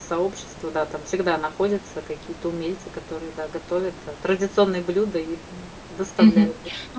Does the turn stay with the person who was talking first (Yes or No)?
No